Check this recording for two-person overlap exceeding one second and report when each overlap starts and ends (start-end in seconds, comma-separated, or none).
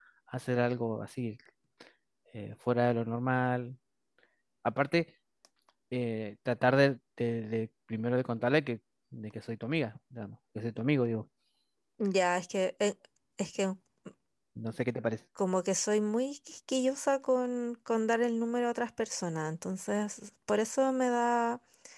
none